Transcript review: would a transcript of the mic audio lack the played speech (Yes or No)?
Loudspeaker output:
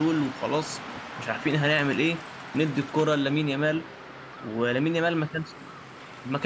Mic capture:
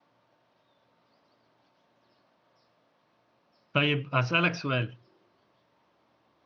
Yes